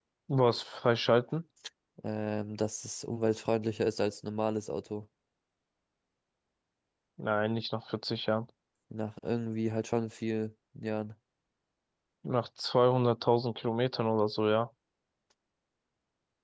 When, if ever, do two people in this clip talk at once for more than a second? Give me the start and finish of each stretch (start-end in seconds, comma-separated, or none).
none